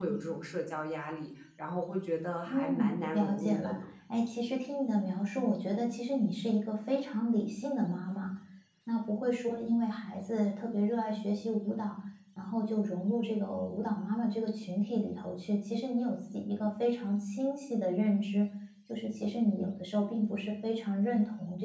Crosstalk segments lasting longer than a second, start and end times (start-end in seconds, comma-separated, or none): 2.5-3.7